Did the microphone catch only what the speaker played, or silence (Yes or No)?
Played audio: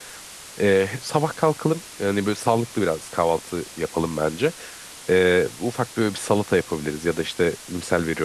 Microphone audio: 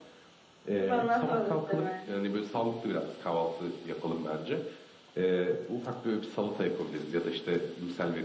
No